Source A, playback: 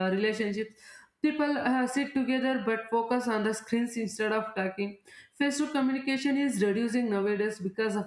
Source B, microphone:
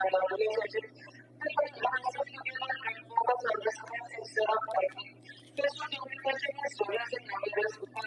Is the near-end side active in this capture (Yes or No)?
No